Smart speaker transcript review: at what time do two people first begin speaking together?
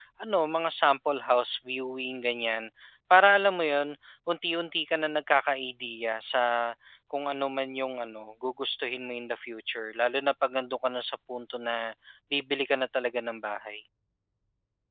none

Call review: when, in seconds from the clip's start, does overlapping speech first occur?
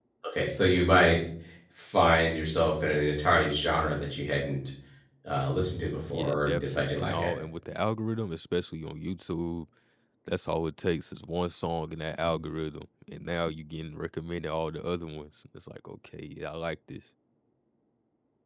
6.1 s

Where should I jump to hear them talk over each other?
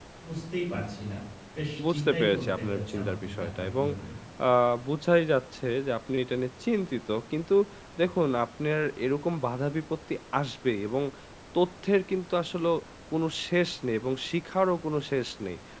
1.9 s

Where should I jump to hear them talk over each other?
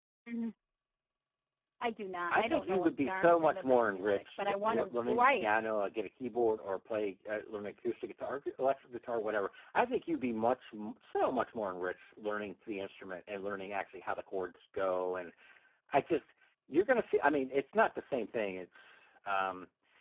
2.3 s

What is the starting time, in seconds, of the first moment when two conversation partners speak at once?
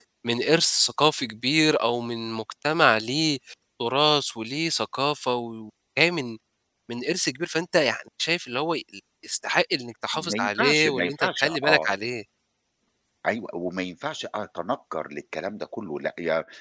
10.1 s

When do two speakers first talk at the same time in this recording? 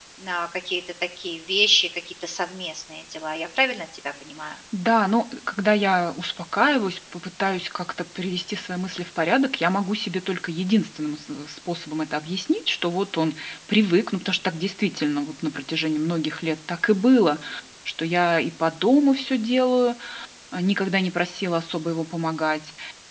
none

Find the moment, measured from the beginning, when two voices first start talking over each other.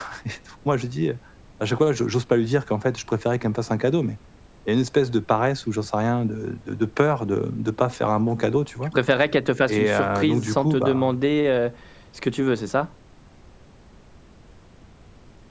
9.7 s

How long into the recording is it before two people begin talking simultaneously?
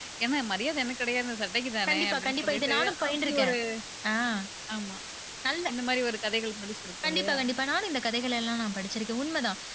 1.9 s

